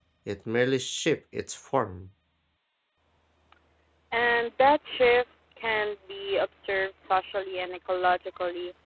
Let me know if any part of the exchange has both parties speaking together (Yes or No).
No